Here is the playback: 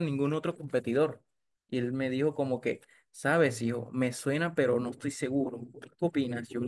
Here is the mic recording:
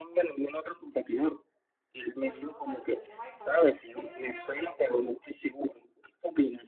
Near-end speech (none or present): present